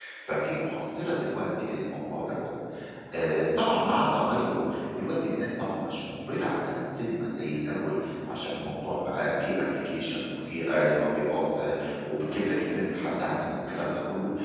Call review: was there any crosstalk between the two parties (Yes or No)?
No